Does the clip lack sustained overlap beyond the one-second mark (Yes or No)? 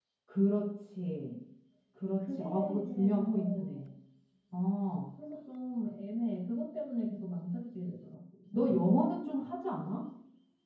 No